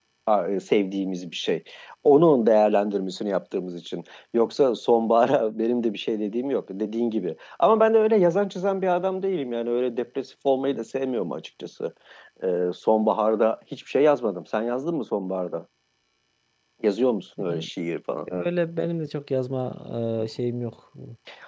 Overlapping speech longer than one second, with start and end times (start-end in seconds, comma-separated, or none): none